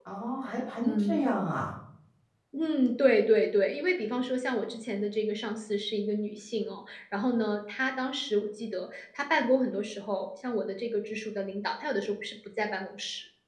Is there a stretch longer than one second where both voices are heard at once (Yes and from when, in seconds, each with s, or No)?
No